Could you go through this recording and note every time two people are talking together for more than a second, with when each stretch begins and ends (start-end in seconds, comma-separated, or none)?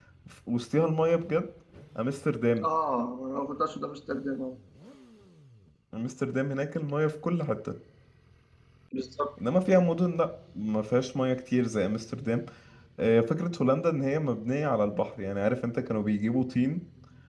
none